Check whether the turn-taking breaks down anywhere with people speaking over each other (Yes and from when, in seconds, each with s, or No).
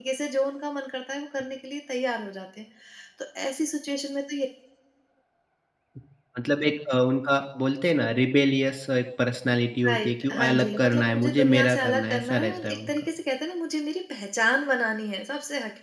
Yes, from 9.8 s